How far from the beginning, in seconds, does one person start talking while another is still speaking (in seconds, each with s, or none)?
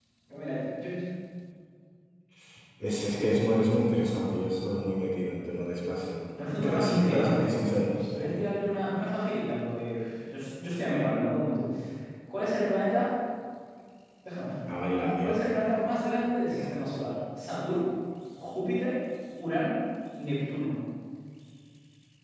6.6 s